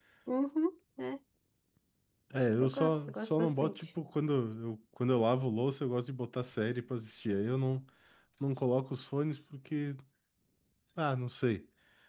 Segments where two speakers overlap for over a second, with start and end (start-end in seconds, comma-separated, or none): 2.6-3.9